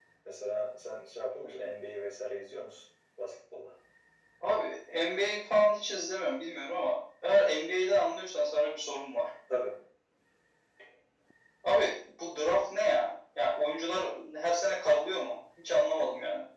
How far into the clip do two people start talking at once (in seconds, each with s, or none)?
none